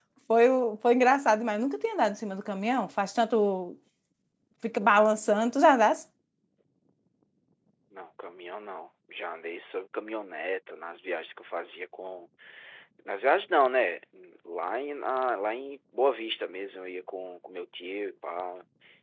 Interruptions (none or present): none